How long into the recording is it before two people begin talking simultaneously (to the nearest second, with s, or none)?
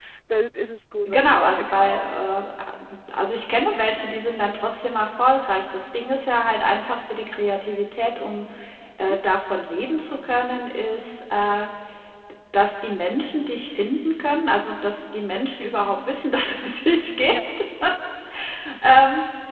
1 s